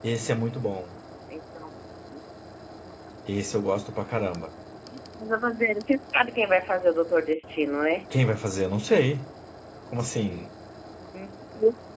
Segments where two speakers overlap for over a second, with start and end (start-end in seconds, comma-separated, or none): none